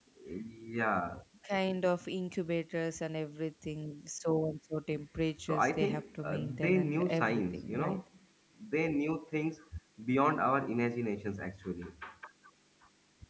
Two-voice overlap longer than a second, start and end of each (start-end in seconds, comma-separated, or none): 5.5-8.0